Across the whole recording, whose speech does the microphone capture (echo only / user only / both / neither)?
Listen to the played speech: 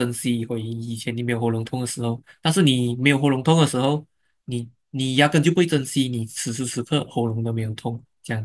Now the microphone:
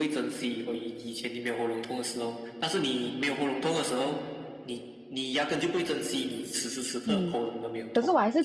both